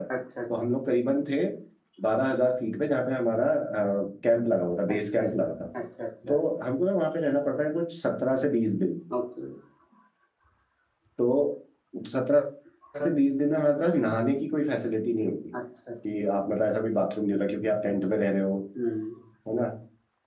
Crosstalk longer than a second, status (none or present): none